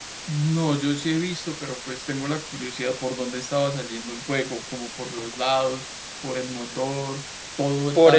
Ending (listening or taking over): taking over